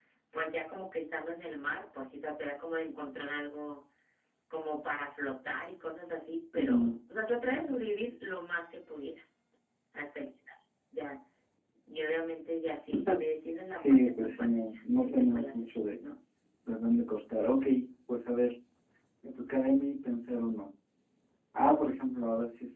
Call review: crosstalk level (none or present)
present